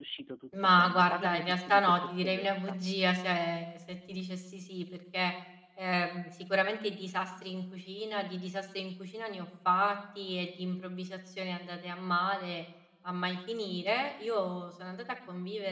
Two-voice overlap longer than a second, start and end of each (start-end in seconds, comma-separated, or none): 0.6-2.8